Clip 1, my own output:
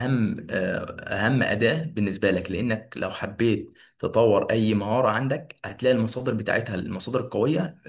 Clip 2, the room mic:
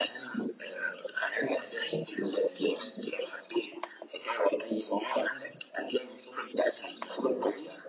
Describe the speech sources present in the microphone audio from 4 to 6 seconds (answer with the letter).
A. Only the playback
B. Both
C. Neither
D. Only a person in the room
A